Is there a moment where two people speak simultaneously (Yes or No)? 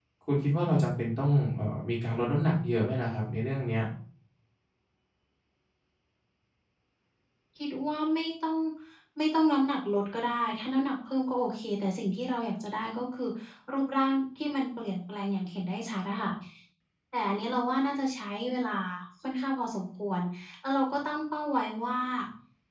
No